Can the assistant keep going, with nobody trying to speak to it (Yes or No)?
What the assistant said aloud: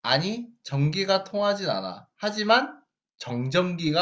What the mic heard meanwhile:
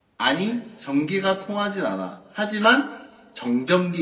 Yes